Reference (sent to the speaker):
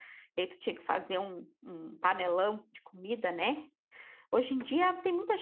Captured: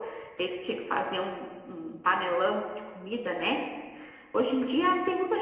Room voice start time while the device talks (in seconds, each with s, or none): none